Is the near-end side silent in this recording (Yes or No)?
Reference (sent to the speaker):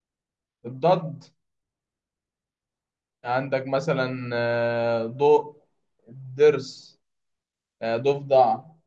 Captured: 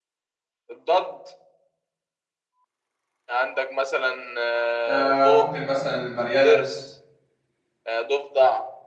No